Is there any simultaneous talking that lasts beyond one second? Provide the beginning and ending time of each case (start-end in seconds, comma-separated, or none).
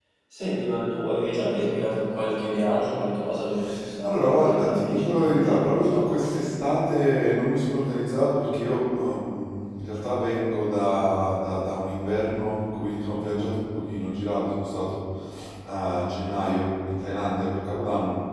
4.0-6.1